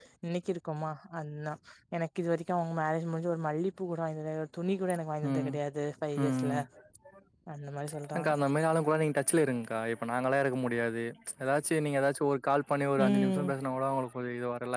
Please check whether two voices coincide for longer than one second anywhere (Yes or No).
No